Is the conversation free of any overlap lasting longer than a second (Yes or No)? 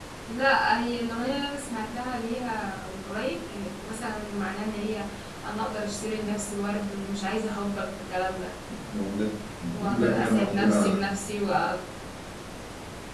No